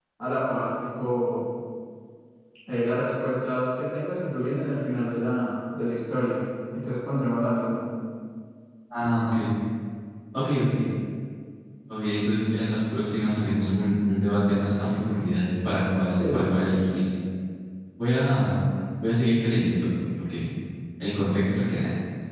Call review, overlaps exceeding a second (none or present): none